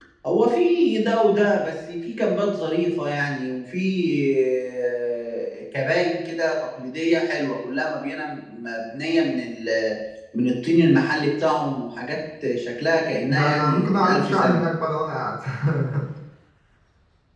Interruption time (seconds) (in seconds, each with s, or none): 13.3 s